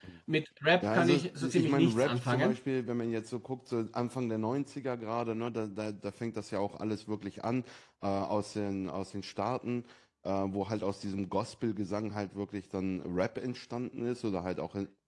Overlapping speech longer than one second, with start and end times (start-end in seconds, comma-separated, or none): 0.8-2.6